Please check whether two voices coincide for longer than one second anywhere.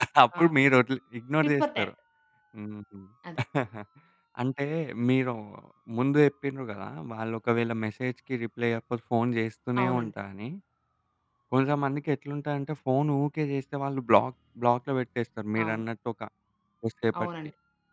No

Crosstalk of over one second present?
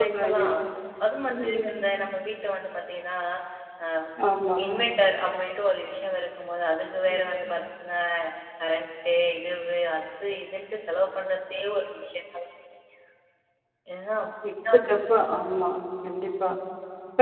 No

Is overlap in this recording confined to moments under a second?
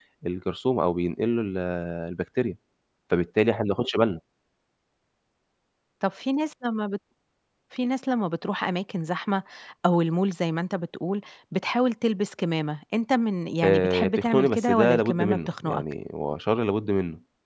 No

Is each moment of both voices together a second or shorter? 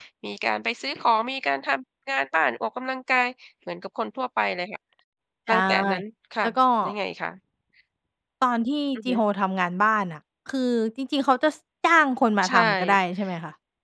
Yes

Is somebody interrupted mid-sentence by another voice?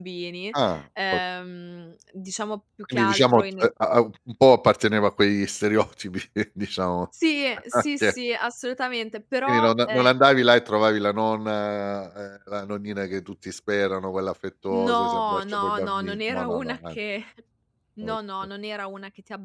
Yes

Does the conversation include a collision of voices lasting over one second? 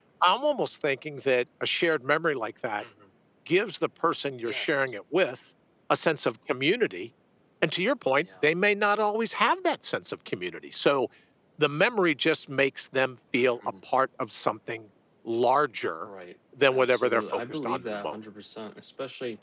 Yes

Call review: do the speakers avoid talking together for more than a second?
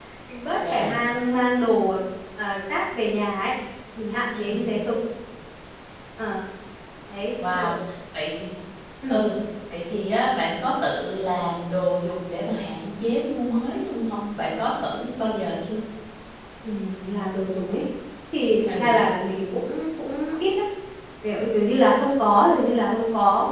Yes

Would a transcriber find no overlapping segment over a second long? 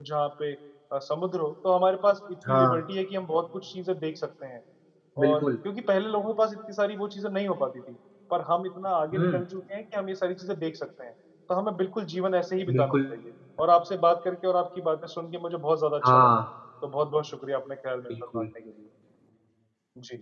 Yes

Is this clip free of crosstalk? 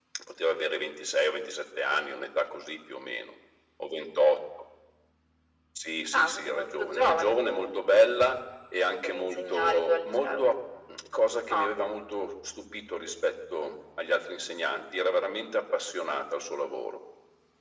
No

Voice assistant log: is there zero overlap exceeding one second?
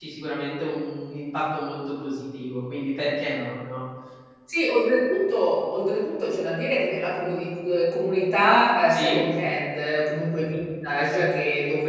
Yes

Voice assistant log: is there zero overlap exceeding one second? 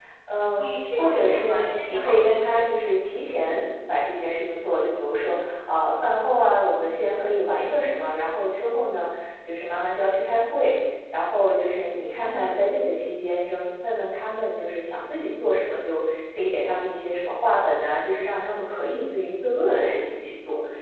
No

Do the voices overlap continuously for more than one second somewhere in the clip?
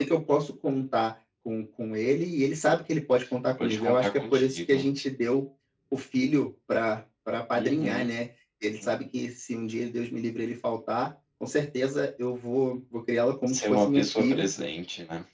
Yes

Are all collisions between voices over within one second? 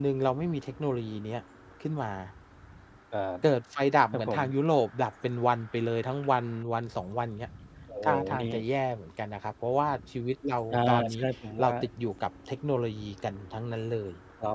Yes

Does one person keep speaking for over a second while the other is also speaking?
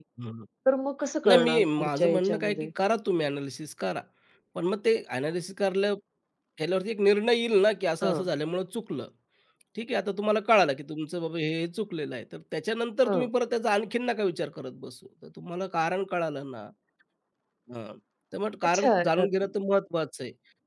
Yes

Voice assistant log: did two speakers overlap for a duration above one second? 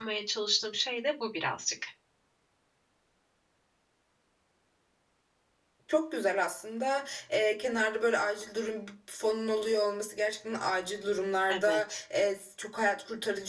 No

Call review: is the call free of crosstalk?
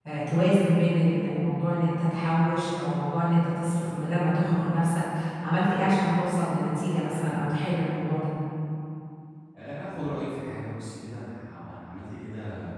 Yes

